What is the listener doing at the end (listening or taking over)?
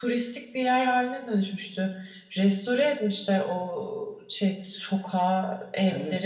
taking over